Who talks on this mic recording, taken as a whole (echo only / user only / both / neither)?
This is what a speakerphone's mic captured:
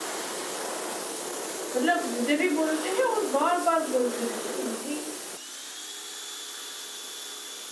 user only